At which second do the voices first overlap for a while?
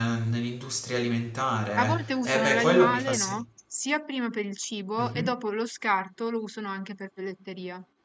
1.8 s

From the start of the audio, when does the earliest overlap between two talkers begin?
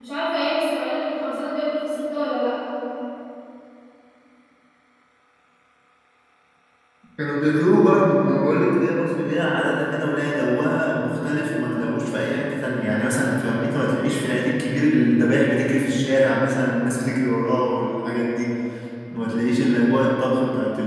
none

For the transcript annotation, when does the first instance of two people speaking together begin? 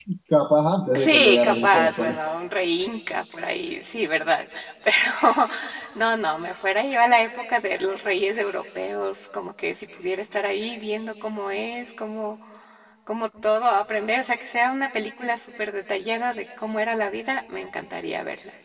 1.0 s

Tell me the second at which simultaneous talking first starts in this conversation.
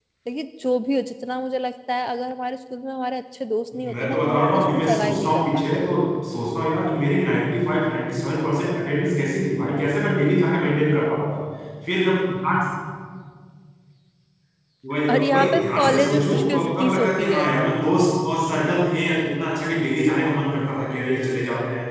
3.9 s

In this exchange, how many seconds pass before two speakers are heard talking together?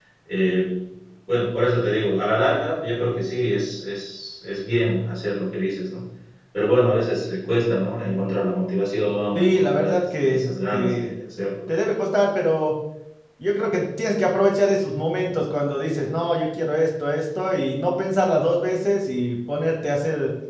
9.4 s

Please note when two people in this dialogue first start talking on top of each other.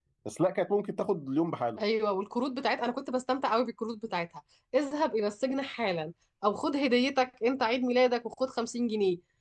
none

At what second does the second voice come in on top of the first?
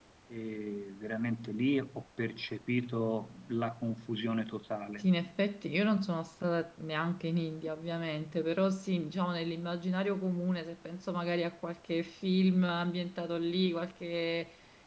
none

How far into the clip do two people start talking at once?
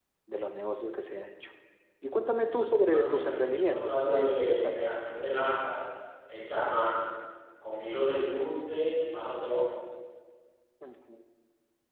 2.9 s

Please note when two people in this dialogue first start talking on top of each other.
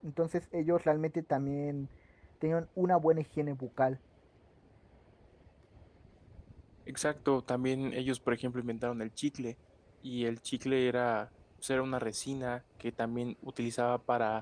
none

